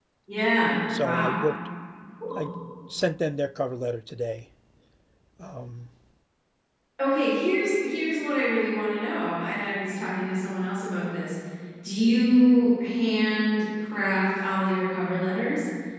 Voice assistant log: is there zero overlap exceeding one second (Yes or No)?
Yes